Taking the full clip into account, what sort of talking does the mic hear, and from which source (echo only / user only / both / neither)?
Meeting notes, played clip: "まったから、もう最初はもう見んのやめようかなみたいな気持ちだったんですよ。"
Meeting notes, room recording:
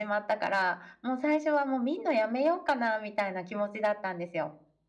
echo only